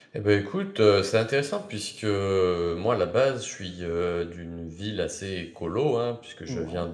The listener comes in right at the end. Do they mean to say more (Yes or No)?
No